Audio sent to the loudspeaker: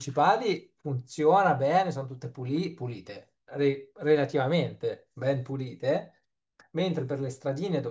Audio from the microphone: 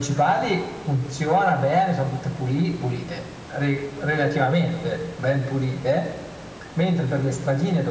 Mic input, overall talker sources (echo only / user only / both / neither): echo only